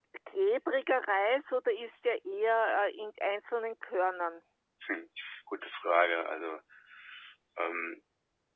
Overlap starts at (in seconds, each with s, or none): none